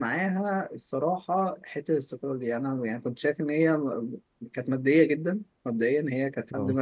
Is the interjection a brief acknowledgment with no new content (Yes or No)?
Yes